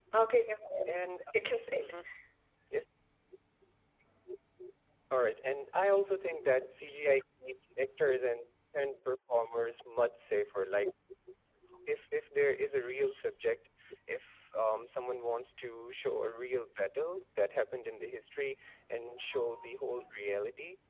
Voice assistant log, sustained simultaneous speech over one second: none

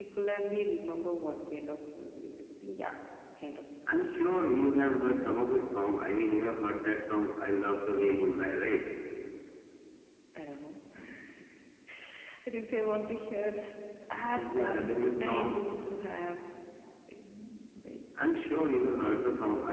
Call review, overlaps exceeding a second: present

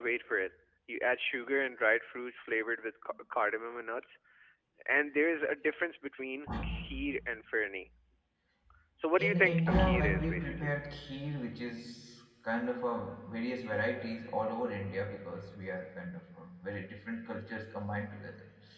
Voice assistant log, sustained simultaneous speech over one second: present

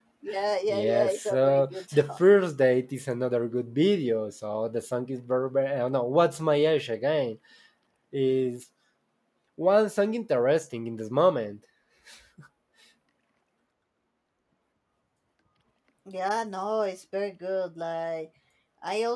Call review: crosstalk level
present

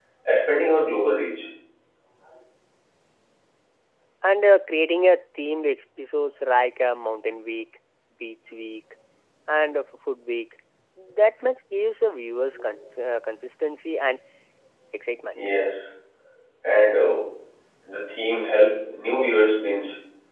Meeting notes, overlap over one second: none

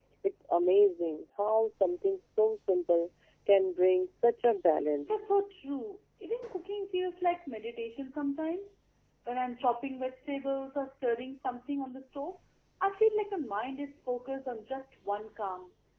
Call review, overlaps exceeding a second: none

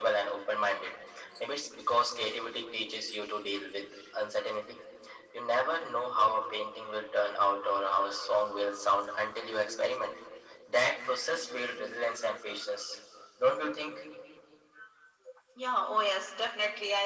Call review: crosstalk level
none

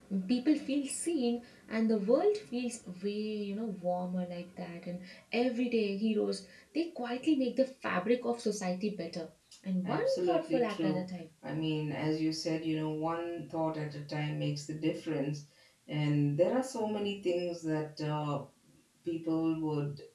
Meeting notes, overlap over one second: present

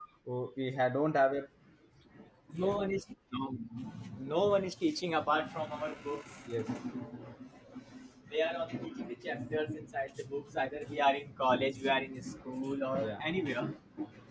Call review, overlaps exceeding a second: none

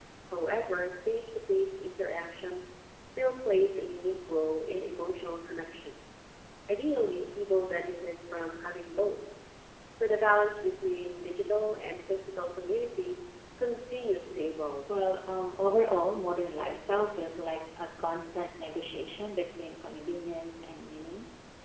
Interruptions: none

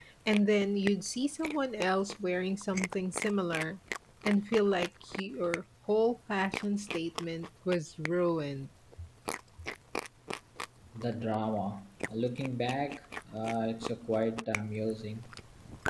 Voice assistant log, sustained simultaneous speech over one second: none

